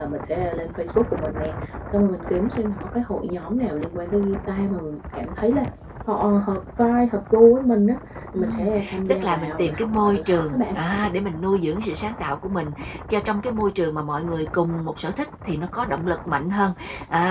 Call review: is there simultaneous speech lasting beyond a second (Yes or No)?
Yes